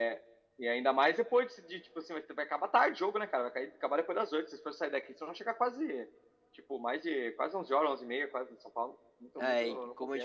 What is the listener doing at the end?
taking over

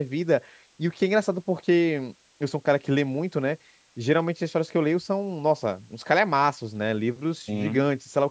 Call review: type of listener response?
listening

